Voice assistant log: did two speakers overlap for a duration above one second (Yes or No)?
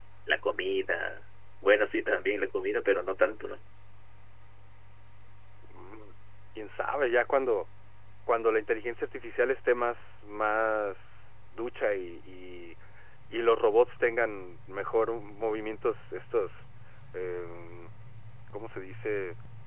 No